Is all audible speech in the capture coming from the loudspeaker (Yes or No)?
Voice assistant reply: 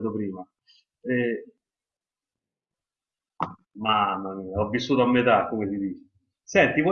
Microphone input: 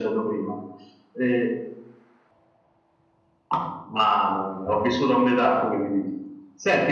Yes